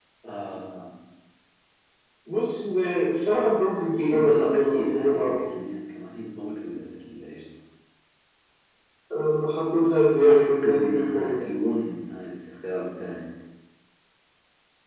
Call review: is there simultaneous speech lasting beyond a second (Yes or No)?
Yes